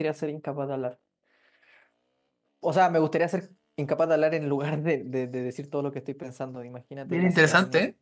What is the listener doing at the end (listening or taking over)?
taking over